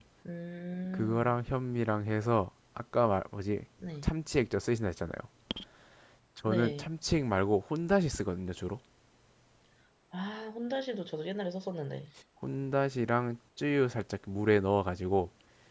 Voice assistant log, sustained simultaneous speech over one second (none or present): none